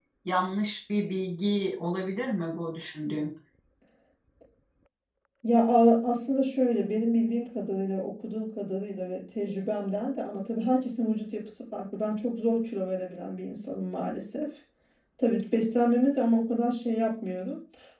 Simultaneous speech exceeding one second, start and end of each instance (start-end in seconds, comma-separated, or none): none